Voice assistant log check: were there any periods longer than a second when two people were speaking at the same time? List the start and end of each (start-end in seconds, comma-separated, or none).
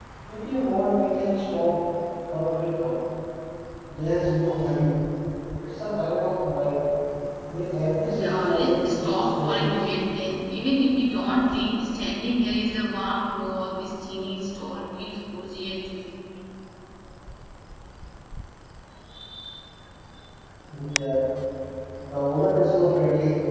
8.1-9.8